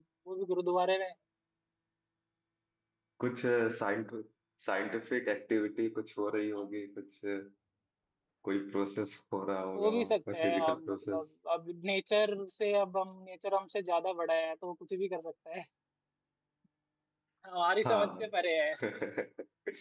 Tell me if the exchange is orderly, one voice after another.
No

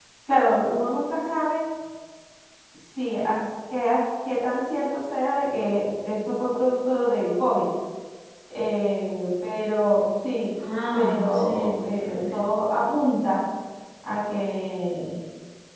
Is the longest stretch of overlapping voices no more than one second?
No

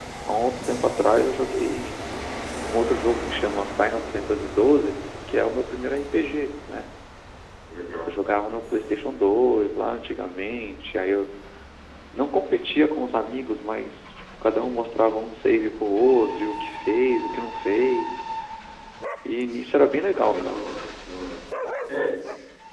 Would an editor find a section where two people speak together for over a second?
No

